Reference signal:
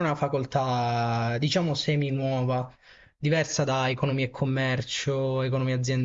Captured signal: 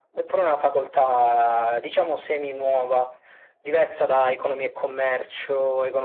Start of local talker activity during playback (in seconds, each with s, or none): none